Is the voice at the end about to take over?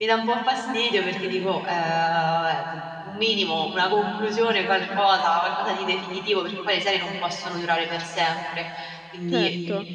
Yes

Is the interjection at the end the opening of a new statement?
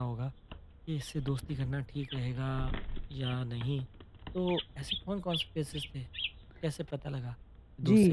Yes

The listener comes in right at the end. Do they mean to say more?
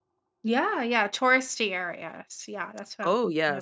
Yes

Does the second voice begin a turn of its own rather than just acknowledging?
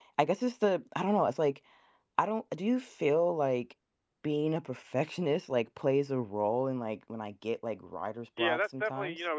Yes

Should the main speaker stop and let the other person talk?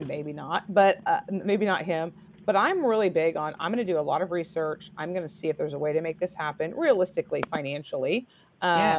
No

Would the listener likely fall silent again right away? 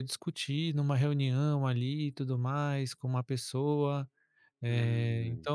Yes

